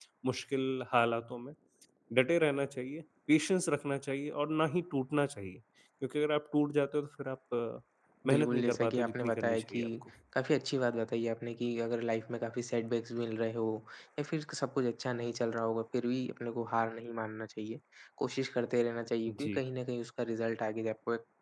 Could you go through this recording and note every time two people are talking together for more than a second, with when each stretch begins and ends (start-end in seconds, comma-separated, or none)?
8.3-9.8